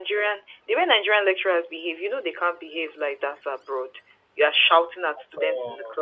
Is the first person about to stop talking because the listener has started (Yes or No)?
No